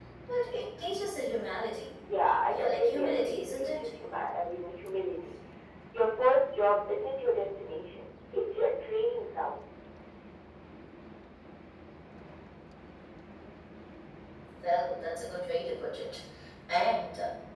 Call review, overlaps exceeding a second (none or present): present